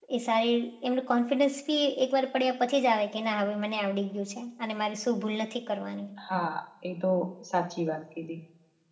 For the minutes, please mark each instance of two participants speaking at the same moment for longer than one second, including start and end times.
none

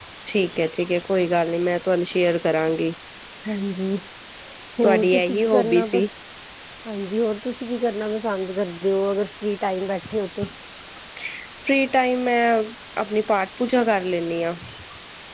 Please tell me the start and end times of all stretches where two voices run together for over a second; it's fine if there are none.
4.8-6.0

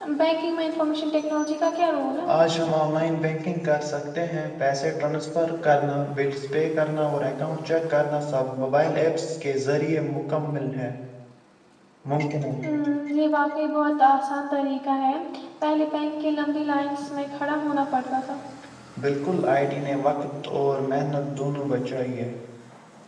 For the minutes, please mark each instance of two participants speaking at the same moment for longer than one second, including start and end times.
none

